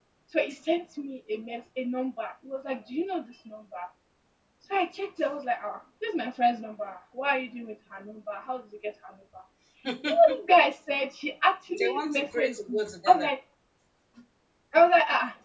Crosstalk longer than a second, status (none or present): present